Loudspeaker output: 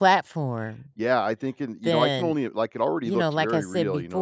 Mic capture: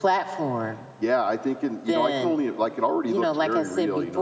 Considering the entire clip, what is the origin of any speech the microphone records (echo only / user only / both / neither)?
echo only